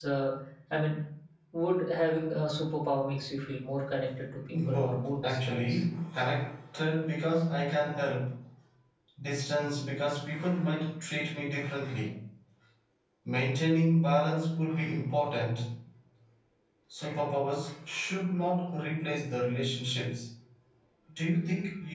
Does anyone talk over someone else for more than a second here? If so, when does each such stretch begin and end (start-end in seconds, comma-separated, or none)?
4.5-5.8